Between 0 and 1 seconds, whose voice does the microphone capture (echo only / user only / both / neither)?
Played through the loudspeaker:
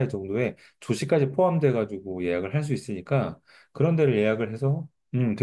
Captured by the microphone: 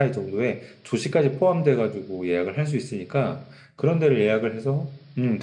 echo only